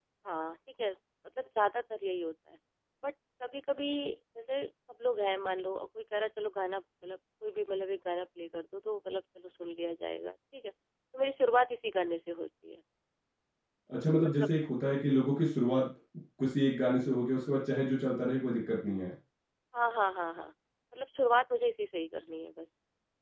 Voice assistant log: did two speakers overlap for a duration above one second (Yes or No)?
No